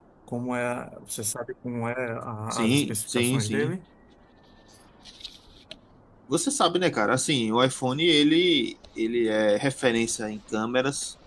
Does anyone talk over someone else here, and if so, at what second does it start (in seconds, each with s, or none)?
2.5 s